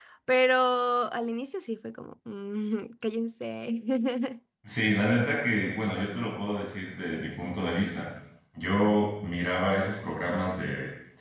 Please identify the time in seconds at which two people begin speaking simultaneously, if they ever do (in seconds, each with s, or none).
none